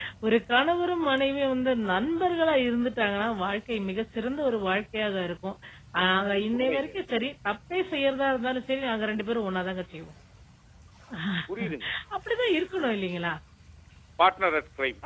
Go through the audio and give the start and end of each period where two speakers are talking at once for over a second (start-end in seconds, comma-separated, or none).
none